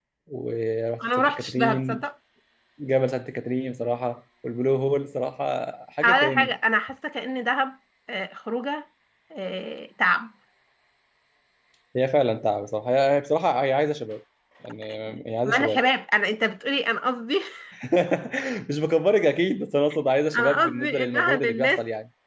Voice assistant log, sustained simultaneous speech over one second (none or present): present